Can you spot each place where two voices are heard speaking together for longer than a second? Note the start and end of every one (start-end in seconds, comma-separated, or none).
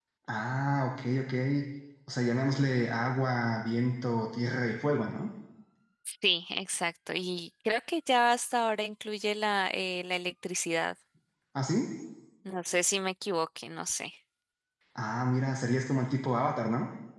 none